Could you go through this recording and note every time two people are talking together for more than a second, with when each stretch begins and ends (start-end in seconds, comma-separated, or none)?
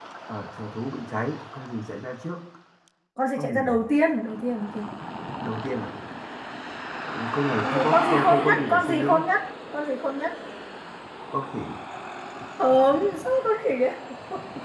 7.6-9.1